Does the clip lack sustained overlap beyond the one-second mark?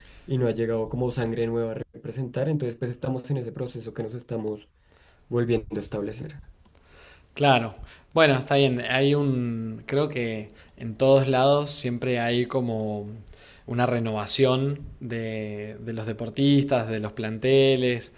Yes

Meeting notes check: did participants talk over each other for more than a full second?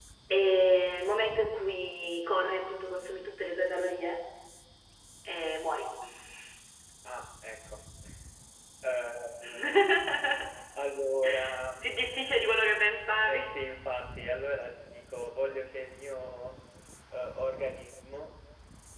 No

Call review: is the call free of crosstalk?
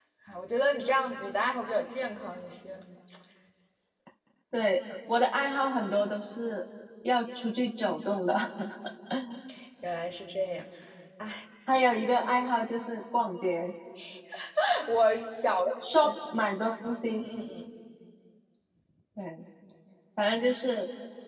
Yes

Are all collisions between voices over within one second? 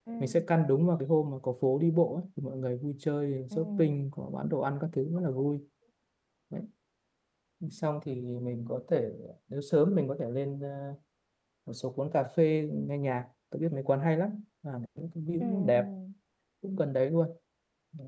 Yes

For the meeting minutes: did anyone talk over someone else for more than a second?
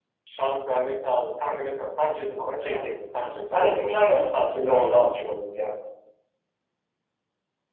Yes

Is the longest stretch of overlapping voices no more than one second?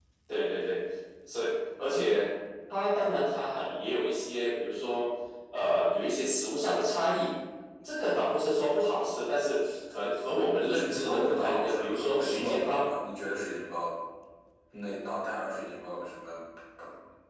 No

